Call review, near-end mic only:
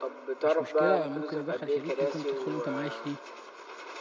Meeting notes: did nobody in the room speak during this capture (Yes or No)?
No